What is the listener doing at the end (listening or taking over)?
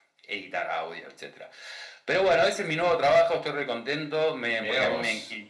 listening